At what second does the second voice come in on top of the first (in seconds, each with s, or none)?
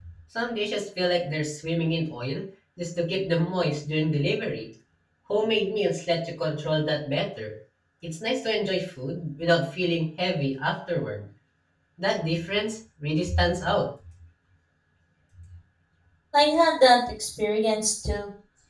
none